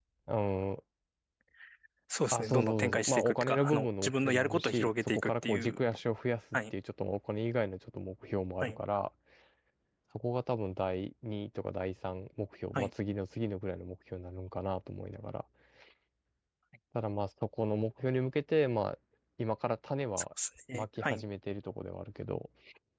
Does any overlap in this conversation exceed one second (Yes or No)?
Yes